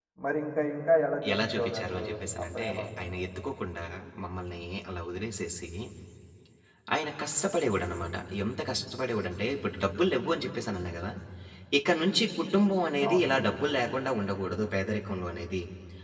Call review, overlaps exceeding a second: present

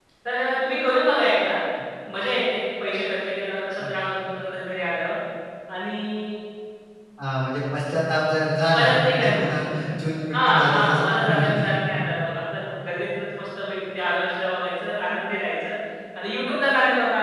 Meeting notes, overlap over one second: present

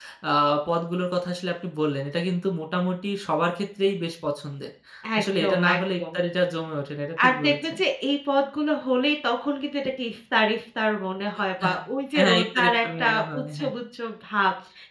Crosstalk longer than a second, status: present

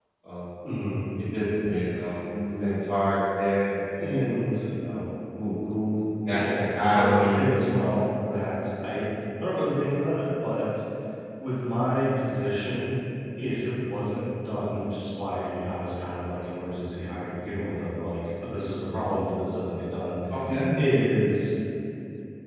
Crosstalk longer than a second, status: present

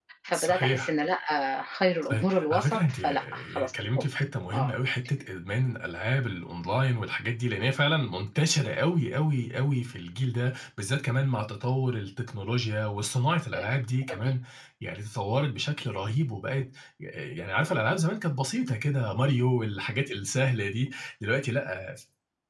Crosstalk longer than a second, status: present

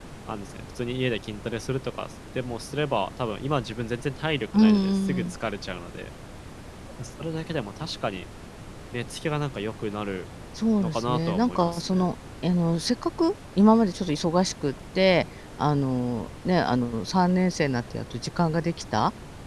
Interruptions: present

